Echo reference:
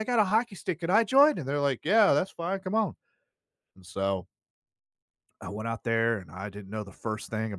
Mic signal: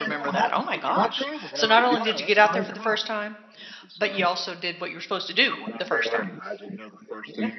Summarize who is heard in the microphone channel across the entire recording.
both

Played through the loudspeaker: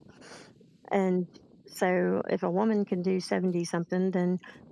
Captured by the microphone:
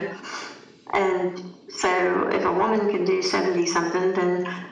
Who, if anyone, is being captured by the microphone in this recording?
echo only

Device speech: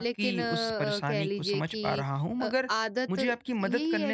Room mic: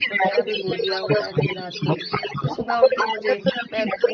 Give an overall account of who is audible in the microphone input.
both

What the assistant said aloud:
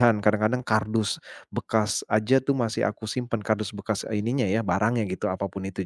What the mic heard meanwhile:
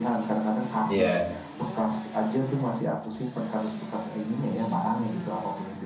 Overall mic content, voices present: both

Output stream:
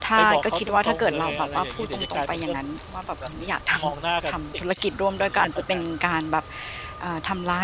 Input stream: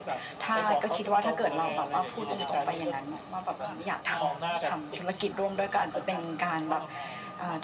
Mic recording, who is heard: both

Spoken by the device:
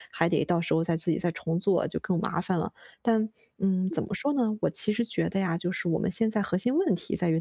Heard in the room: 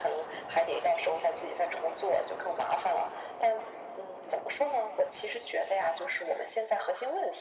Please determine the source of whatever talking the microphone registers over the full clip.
echo only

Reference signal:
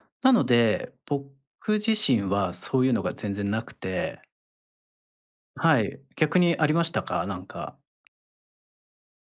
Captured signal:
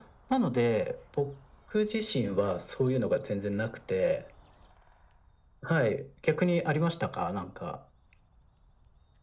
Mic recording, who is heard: echo only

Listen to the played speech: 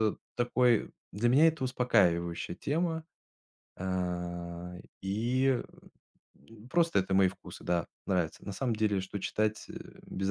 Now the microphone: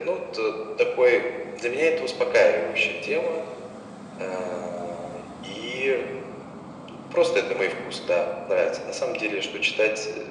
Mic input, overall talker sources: echo only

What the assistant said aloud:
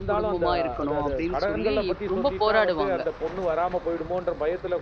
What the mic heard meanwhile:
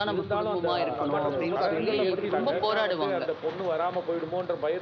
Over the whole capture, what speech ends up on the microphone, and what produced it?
both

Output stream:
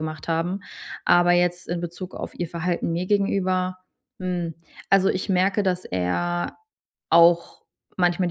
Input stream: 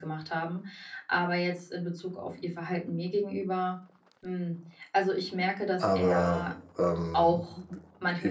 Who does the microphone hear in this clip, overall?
both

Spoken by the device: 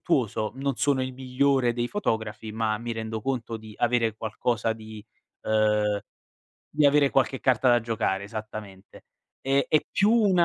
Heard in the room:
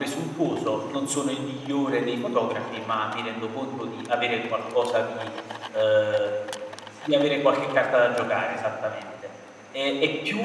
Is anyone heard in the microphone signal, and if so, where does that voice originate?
echo only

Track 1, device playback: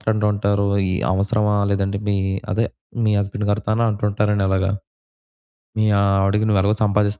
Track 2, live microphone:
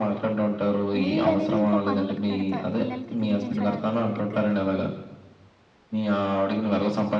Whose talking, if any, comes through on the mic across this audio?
both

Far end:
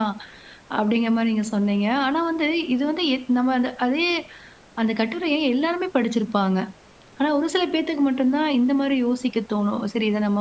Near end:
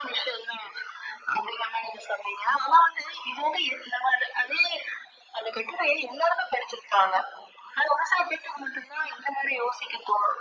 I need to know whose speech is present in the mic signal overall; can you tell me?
echo only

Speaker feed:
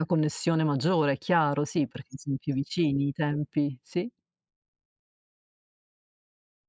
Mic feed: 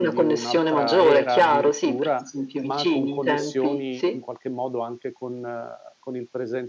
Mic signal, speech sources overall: both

